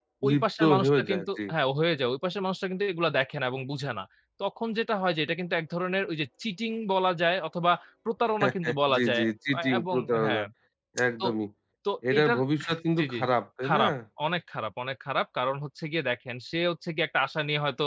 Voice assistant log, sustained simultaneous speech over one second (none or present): present